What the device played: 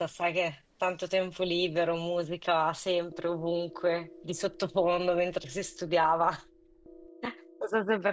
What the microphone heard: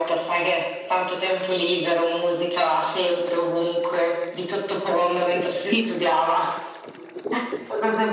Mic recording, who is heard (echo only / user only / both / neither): both